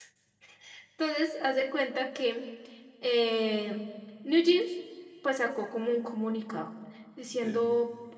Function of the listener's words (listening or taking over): listening